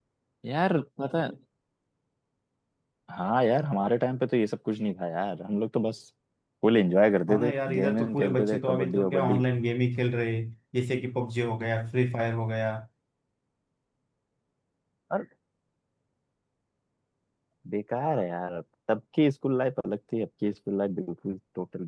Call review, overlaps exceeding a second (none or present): present